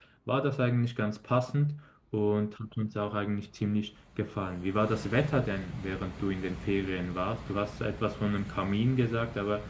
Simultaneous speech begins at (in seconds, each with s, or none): none